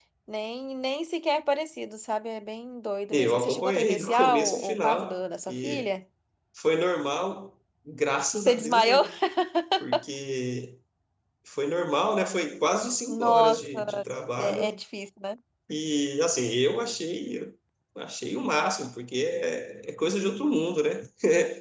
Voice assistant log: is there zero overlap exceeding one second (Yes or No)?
No